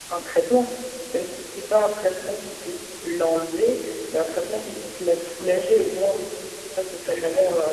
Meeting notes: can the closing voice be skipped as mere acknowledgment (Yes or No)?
No